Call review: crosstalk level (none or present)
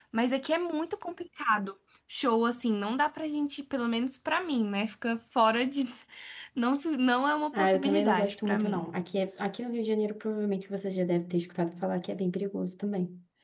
present